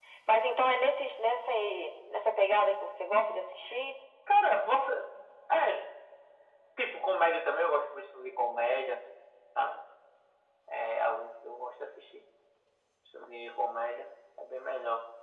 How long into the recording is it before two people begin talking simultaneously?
none

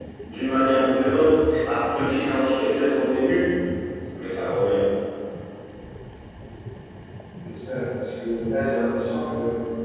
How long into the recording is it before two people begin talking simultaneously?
none

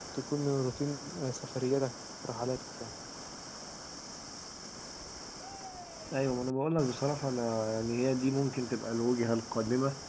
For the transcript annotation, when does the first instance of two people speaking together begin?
none

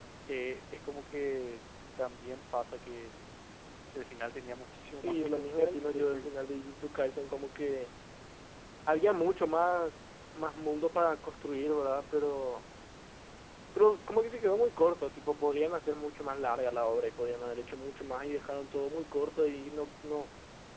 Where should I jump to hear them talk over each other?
5.0 s

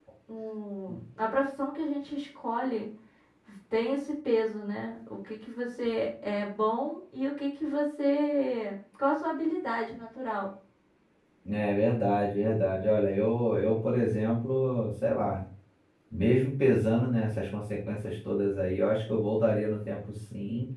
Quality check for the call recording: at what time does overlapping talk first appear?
none

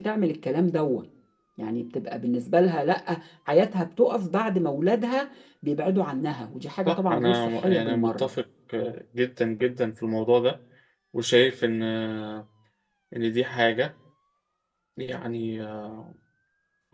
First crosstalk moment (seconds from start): 6.8 s

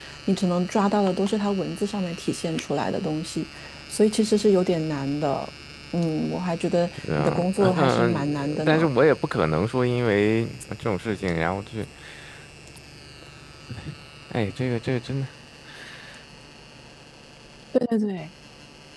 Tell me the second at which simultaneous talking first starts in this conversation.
7.0 s

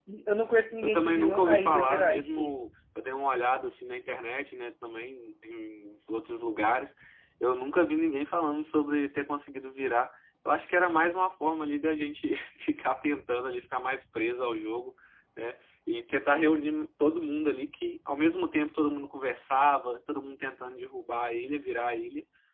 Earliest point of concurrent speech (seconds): 0.8 s

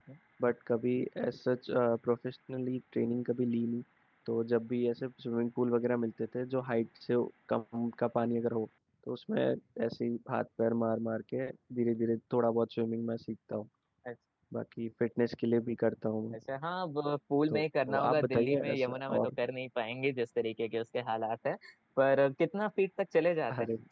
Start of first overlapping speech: 17.5 s

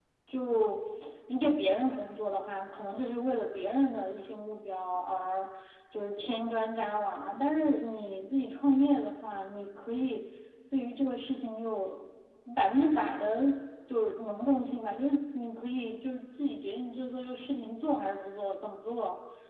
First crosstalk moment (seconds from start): none

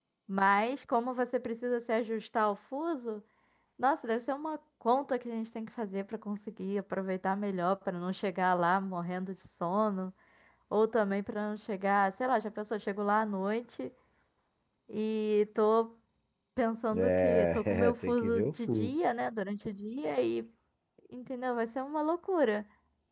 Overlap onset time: 16.9 s

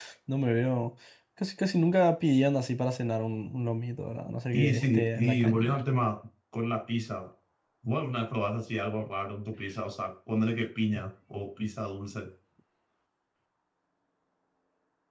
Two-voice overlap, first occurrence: 4.5 s

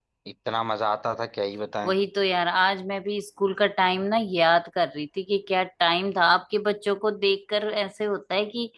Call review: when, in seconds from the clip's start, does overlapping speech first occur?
none

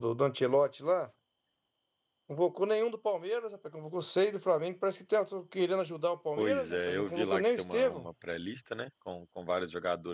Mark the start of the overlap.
6.4 s

